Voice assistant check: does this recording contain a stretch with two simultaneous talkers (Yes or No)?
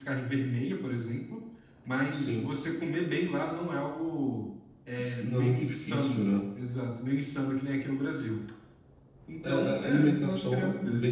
Yes